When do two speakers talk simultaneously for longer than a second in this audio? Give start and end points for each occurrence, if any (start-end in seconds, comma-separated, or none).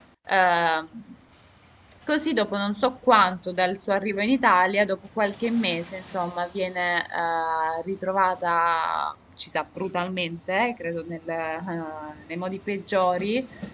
none